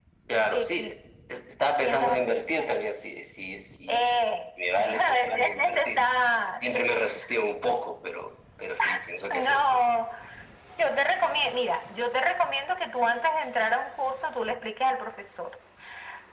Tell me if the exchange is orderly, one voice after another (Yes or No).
No